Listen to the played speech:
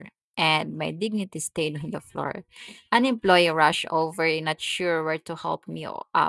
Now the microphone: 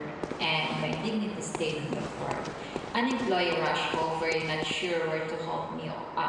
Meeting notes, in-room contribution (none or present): none